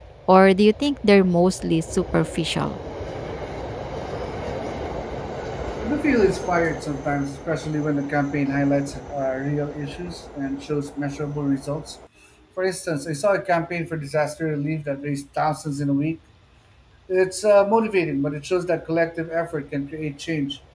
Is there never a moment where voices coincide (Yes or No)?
Yes